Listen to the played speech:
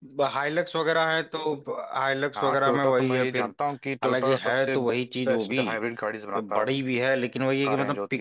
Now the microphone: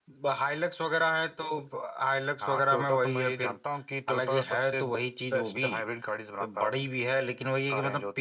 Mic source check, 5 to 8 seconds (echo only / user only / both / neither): echo only